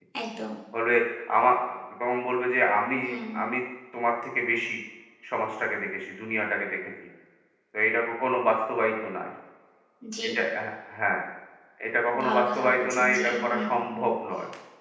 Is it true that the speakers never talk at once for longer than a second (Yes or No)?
No